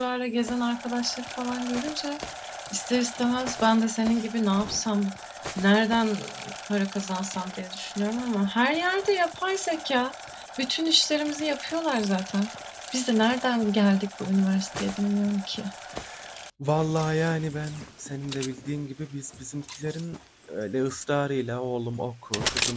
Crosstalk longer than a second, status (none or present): none